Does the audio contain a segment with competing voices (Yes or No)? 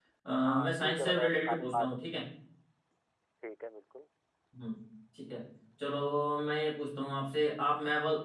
Yes